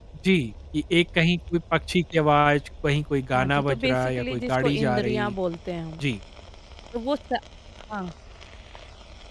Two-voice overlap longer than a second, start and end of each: 3.3-5.3

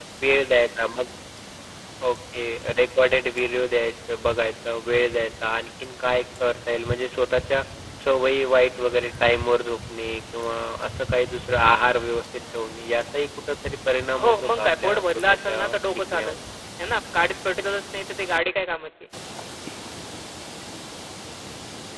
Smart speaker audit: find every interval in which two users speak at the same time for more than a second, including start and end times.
14.2-16.4

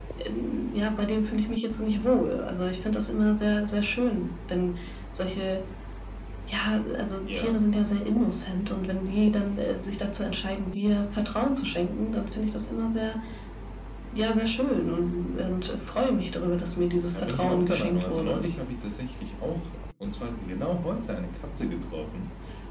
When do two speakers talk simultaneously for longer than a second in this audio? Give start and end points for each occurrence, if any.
17.1-18.4

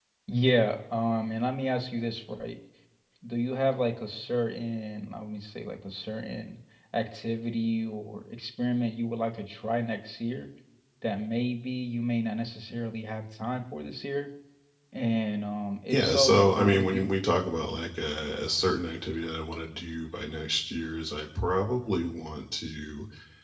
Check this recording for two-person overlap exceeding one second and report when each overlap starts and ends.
15.9-17.1

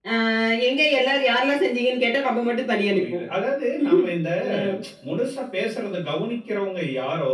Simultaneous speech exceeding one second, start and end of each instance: none

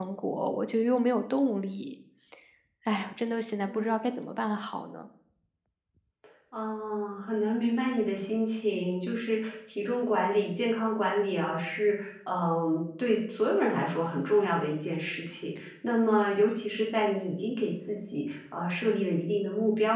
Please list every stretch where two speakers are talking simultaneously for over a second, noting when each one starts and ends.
none

